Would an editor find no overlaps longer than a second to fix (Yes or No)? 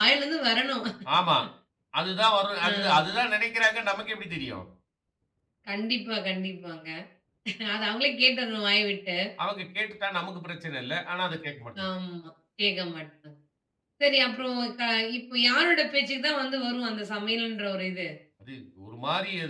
Yes